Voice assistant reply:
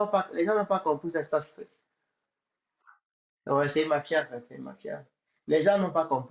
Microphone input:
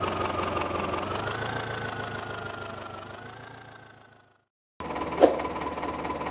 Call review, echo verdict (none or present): none